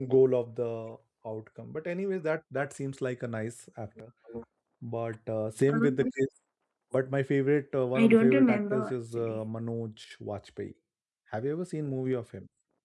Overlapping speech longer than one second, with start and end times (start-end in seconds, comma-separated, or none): 8.0-9.4